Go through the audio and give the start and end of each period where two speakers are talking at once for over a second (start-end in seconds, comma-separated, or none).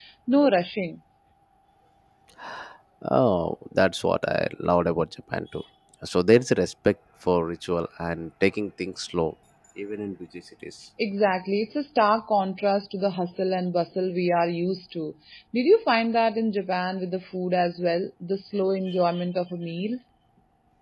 none